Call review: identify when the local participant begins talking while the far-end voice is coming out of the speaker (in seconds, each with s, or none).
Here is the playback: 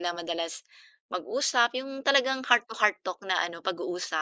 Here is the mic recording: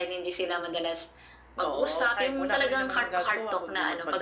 1.6 s